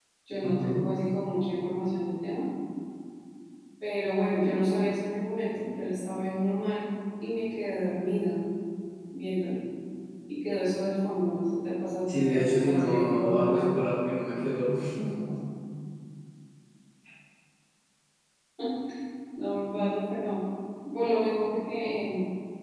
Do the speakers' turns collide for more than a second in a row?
Yes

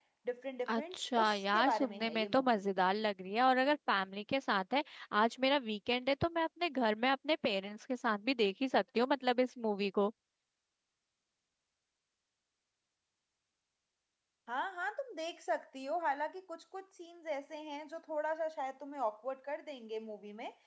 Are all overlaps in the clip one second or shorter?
No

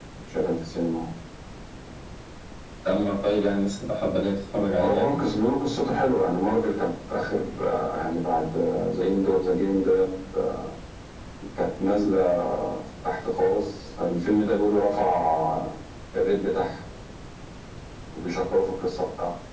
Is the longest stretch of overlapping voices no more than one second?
Yes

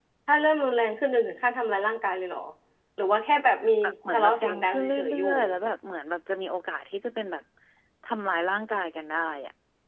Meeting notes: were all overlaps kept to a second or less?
No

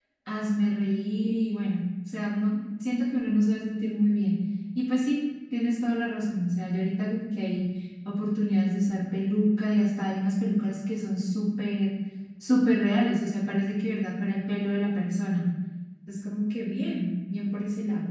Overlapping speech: No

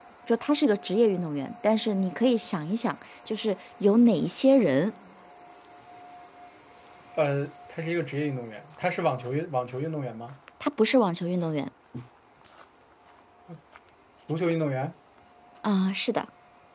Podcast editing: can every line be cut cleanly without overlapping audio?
Yes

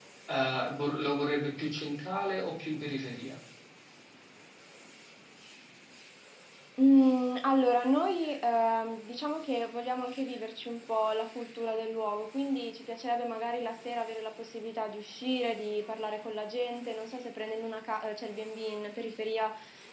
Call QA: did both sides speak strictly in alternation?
Yes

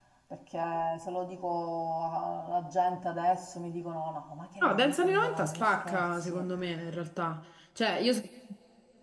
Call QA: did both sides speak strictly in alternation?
No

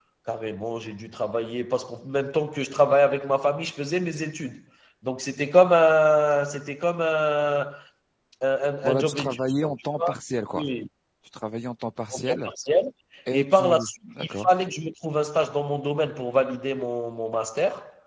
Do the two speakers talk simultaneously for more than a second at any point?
Yes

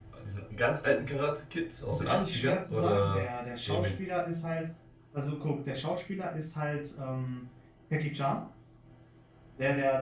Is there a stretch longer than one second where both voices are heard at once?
Yes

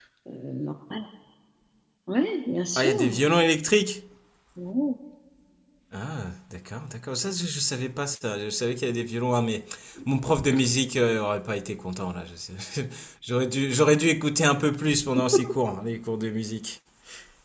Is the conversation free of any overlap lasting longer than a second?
Yes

